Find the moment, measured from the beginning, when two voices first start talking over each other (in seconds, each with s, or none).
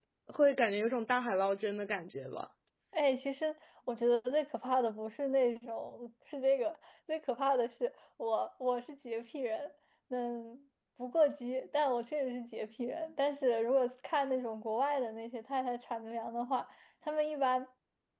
none